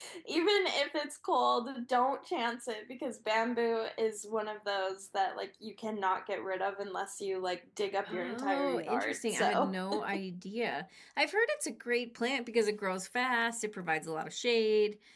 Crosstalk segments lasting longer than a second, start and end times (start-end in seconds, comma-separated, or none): 8.1-9.8